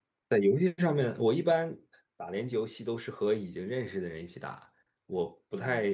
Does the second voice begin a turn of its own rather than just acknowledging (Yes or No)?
No